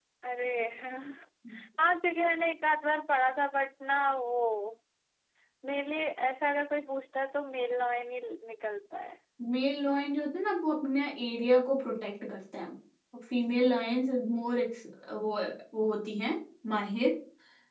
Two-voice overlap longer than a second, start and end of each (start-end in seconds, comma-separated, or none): none